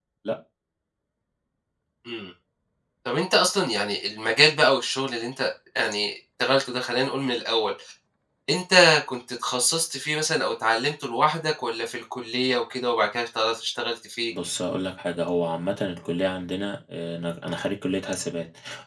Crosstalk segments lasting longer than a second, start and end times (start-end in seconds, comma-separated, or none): none